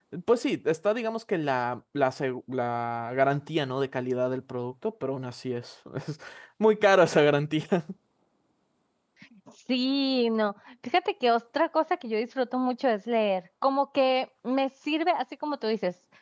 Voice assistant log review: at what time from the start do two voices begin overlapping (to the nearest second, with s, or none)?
none